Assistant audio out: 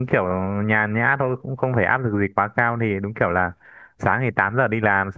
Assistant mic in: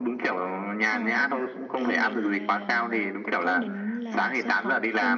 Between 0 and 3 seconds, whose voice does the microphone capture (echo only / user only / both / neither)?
both